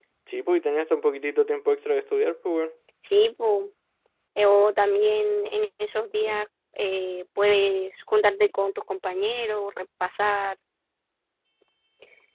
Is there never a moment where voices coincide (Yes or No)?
Yes